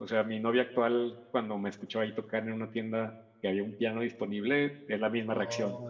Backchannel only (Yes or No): No